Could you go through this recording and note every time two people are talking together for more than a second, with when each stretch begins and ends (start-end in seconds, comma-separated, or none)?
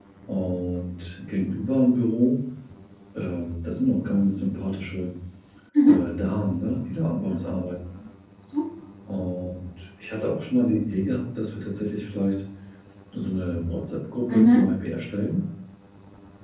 none